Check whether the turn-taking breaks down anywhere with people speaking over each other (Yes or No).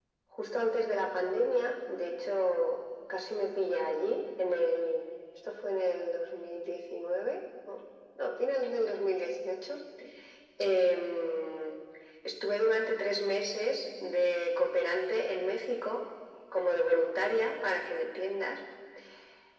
No